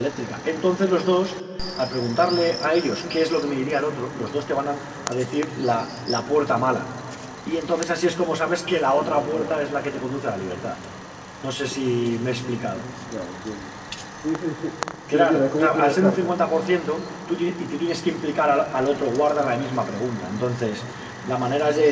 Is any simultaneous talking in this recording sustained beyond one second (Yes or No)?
Yes